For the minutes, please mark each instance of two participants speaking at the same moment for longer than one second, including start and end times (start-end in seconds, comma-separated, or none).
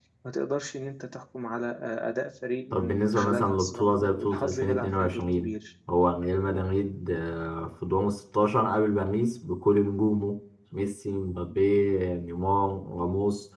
2.7-5.5